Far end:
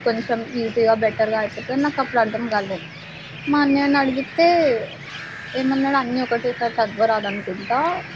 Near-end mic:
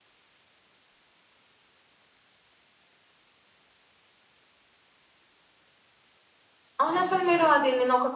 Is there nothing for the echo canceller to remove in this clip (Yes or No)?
Yes